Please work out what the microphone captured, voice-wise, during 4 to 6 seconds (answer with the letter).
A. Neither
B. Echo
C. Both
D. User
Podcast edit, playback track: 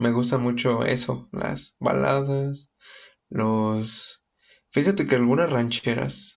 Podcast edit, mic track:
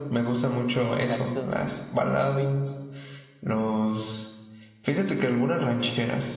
B